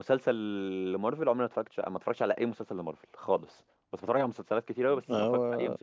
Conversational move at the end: listening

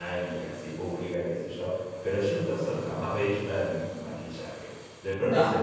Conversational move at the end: listening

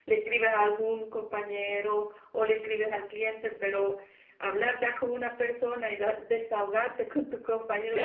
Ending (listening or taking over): listening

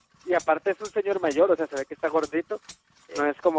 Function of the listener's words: listening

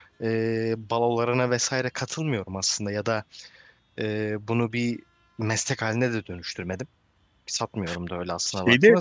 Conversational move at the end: listening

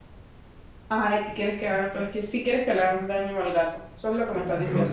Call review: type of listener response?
taking over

